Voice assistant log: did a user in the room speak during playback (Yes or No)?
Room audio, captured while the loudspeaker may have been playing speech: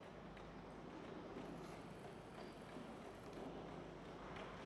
No